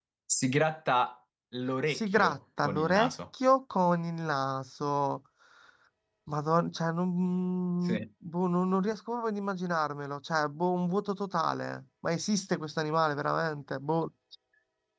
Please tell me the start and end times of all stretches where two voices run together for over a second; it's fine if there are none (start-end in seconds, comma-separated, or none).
1.9-3.1